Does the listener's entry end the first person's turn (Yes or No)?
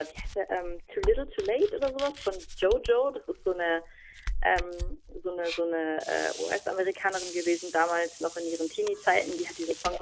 No